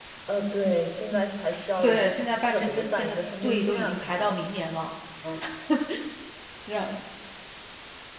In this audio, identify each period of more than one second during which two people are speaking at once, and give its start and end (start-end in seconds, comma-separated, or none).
2.5-4.3